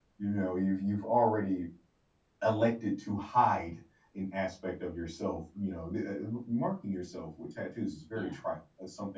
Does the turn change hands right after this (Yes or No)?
No